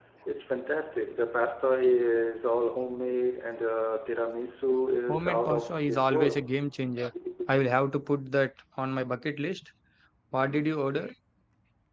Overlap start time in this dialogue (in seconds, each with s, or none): 5.1 s